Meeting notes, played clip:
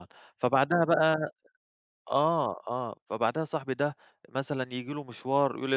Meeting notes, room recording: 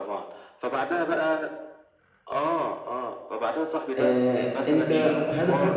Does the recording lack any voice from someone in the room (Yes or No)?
No